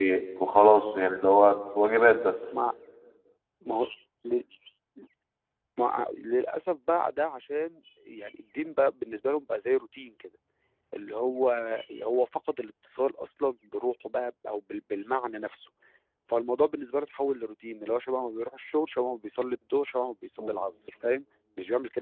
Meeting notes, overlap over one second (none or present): none